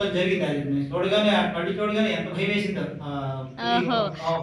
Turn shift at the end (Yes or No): Yes